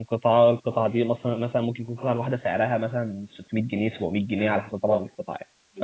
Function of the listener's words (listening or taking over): taking over